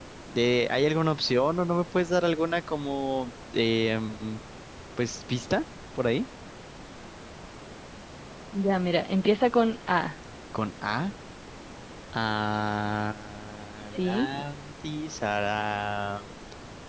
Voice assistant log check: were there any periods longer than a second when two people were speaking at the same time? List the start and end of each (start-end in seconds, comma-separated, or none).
none